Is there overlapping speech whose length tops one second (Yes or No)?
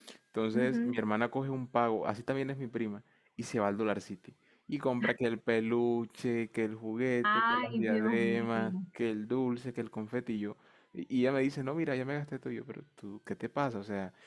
Yes